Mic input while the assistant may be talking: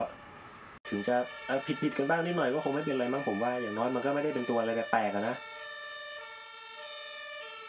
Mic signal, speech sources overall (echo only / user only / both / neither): user only